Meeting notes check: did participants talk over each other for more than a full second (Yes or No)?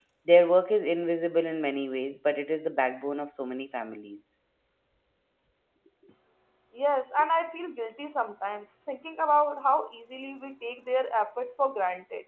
No